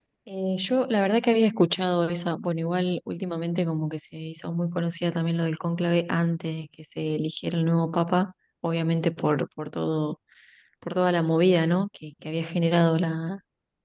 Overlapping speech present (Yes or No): No